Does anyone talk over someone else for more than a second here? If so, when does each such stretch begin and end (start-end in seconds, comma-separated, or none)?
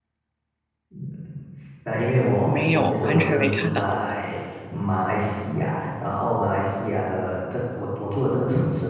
2.5-4.0